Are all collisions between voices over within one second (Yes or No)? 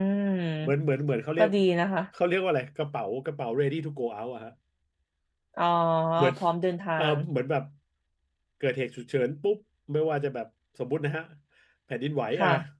Yes